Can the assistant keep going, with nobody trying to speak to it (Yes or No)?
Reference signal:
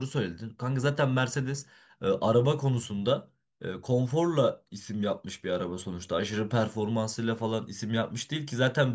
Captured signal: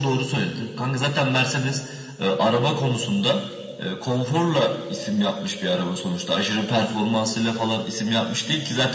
Yes